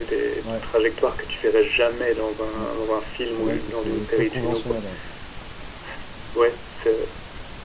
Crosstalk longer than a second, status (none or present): present